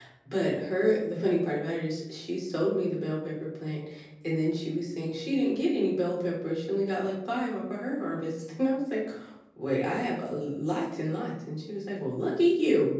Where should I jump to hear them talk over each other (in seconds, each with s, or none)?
none